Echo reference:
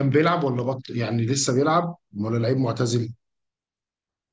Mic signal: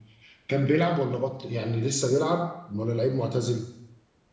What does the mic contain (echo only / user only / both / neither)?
echo only